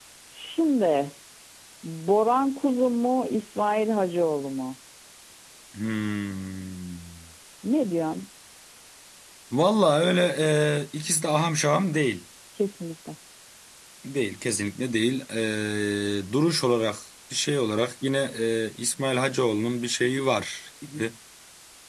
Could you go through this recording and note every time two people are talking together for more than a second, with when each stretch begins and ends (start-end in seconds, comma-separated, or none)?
none